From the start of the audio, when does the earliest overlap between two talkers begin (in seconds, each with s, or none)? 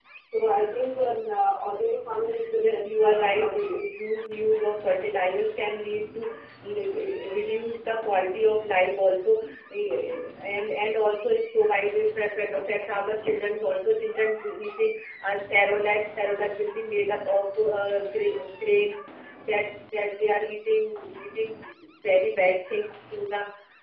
2.6 s